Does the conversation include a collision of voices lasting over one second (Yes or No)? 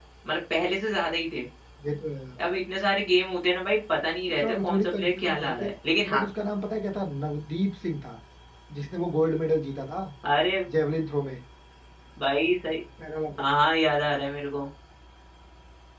Yes